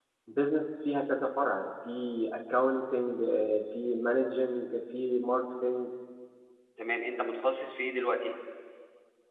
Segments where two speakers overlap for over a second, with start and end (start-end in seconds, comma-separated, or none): none